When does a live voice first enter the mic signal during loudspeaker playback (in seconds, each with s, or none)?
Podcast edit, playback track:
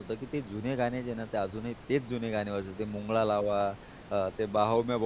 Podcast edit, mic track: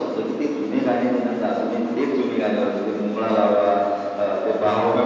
none